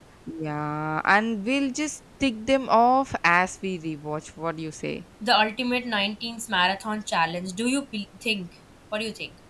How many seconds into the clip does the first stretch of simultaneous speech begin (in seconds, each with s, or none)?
none